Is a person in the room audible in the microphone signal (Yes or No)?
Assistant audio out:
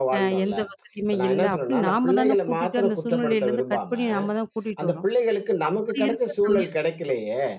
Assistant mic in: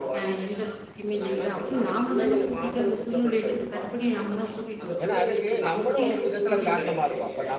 Yes